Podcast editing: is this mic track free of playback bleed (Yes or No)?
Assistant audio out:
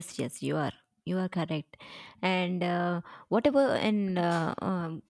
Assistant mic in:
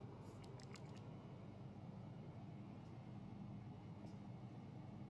Yes